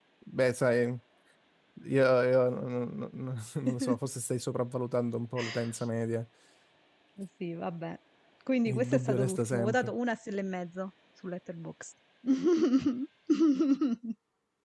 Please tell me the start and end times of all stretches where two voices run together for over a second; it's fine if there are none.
8.7-9.9

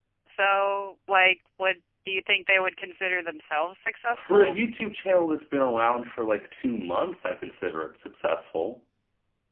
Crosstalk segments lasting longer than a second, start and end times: none

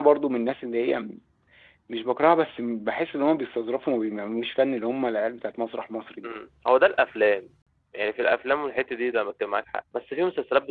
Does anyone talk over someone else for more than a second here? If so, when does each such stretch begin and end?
none

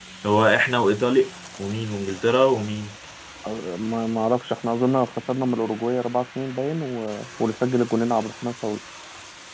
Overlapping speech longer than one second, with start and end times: none

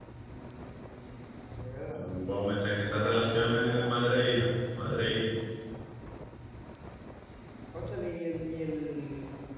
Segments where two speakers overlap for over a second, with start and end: 2.9-4.1

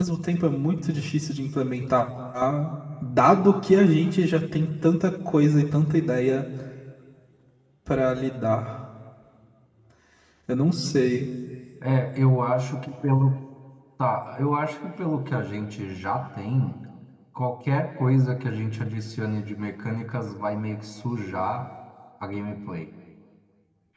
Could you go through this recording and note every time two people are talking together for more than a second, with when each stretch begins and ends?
none

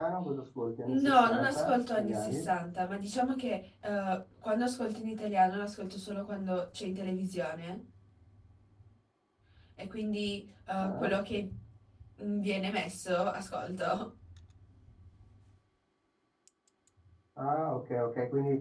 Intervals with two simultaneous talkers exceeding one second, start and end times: 0.9-2.5

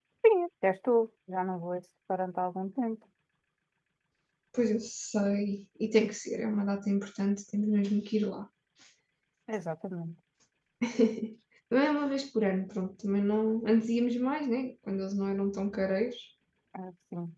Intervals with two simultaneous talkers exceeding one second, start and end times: none

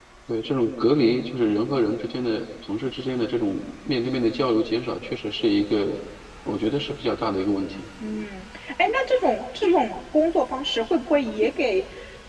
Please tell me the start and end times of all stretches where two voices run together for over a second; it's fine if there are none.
none

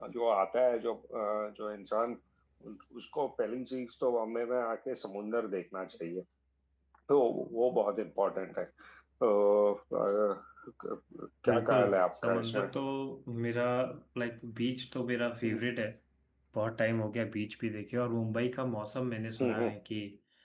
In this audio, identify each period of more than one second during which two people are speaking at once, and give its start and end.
11.5-12.7

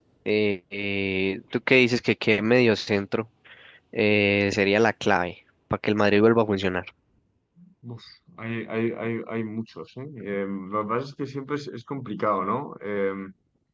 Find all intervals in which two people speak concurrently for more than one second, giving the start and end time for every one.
none

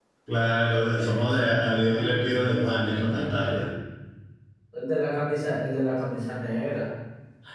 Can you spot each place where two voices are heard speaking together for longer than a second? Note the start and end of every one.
1.0-3.6

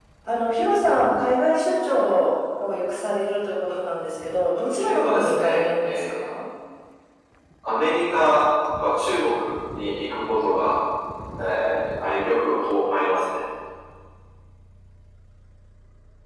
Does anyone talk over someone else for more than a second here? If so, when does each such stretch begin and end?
4.8-6.3

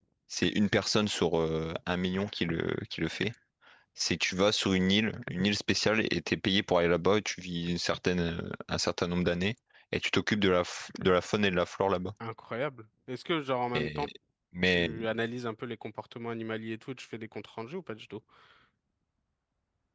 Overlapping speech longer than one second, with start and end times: none

